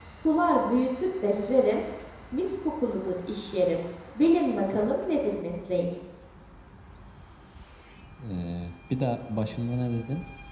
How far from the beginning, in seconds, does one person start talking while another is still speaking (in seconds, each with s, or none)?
none